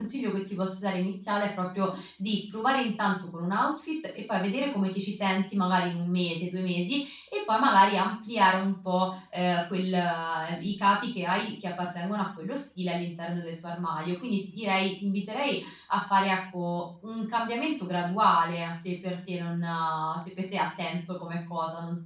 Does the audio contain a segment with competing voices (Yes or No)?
No